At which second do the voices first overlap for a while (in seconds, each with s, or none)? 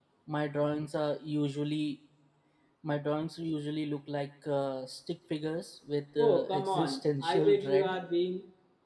6.2 s